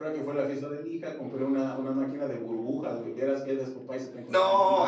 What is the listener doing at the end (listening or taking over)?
taking over